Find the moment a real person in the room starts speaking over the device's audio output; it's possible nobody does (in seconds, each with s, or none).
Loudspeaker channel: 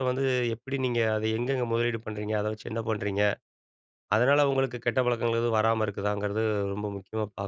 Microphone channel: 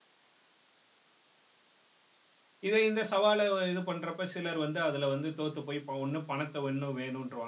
2.7 s